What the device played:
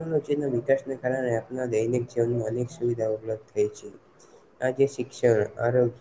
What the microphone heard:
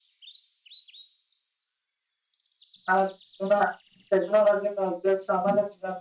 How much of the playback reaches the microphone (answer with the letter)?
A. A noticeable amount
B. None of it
B